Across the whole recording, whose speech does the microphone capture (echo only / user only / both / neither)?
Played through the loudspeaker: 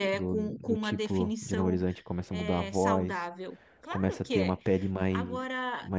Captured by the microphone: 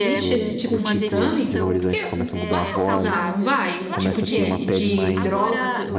both